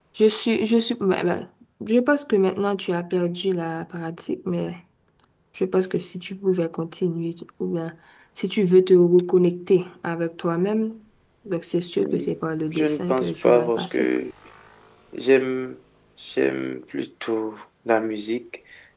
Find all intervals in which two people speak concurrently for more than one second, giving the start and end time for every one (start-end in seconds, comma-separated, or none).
12.7-14.1